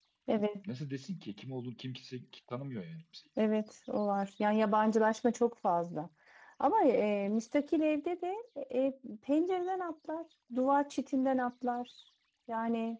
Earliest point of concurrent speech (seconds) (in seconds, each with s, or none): none